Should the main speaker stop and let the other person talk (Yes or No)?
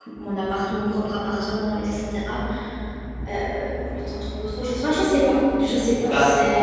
Yes